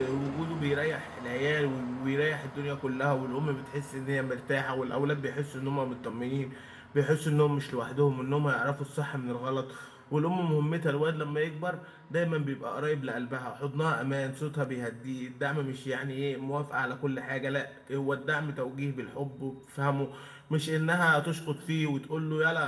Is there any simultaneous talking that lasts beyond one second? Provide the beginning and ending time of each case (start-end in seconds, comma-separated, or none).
none